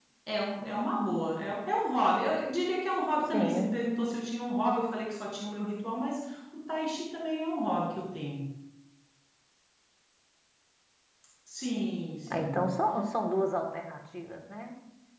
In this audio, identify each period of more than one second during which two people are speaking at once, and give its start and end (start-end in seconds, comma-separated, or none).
none